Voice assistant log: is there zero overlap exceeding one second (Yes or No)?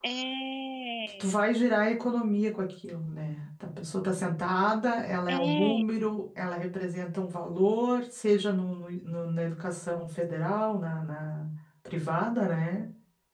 Yes